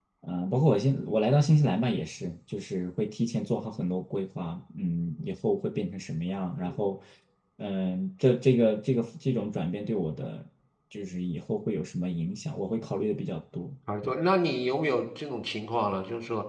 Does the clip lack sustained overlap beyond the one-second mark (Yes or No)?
Yes